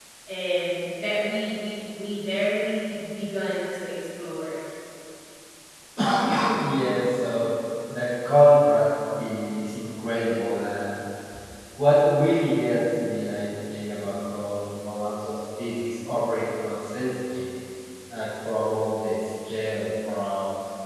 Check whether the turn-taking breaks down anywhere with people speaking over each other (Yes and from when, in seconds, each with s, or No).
No